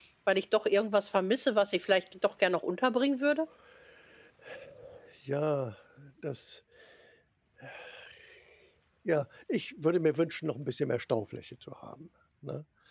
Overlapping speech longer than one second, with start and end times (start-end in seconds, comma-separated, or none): none